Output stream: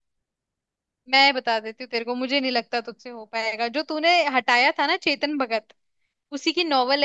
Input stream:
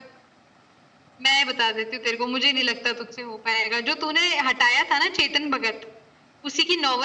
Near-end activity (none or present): none